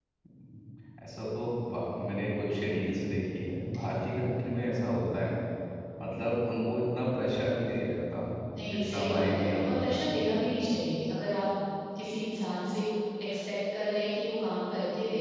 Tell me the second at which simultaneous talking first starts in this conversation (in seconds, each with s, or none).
8.7 s